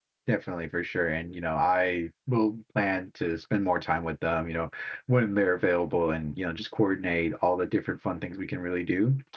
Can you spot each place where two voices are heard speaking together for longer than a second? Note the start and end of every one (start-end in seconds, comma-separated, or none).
none